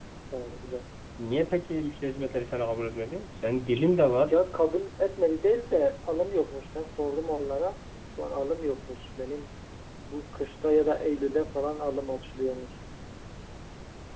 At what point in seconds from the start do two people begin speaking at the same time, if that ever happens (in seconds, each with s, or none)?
none